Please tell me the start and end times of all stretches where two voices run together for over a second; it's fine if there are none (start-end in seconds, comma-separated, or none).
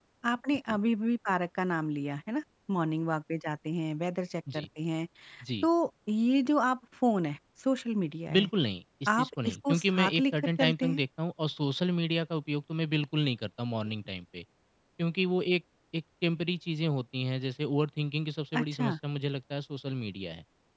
9.1-11.0